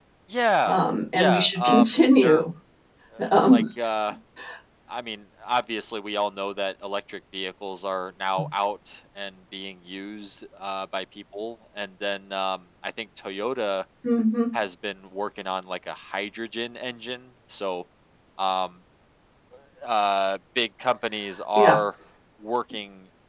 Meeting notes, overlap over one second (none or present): present